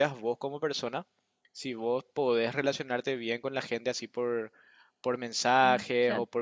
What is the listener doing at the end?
listening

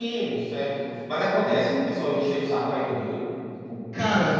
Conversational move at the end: taking over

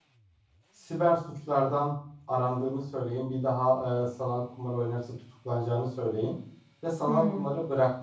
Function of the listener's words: listening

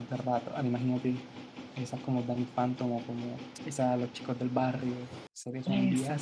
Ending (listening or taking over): taking over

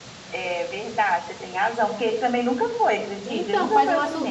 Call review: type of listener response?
taking over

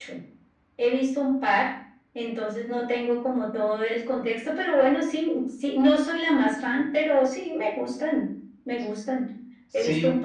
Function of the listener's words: listening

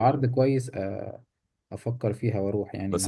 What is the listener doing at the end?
taking over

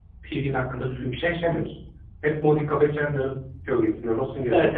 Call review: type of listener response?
taking over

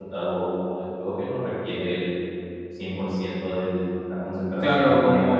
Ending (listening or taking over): taking over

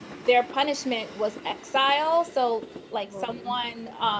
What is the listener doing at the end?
listening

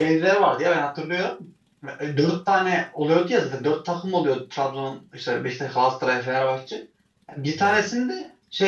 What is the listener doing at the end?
listening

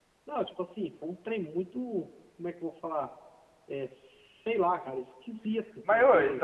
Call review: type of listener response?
taking over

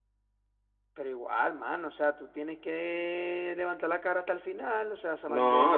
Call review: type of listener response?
taking over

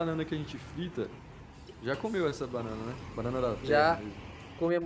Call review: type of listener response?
taking over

